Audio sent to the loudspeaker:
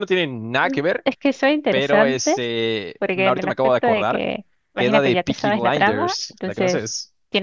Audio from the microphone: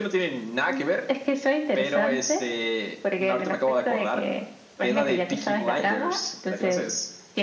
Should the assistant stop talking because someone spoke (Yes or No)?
No